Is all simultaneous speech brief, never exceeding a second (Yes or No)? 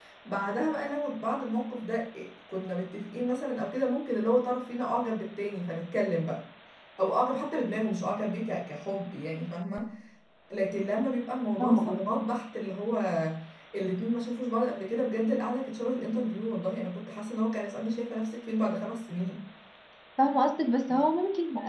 Yes